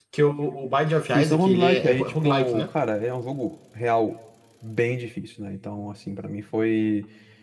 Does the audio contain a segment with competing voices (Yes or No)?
Yes